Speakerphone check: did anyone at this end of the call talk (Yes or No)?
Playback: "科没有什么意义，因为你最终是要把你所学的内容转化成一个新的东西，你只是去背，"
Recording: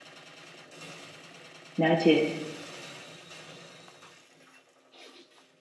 Yes